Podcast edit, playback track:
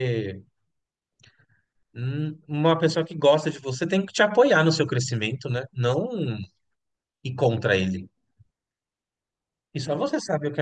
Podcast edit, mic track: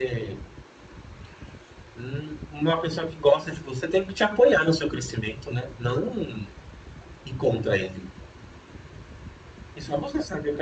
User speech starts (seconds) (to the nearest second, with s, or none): none